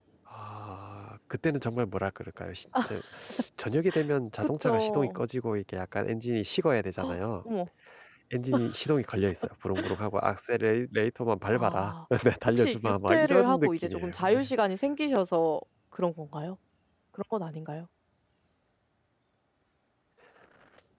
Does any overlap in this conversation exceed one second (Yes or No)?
Yes